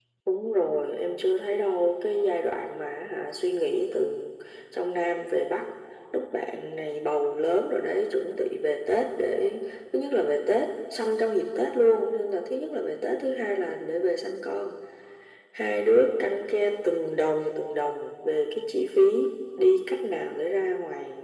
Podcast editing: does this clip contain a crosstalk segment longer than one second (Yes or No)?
No